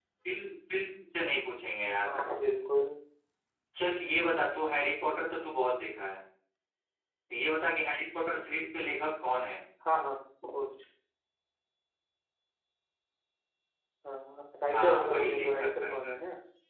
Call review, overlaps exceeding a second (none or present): present